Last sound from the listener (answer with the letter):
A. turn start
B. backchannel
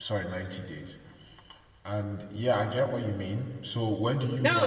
A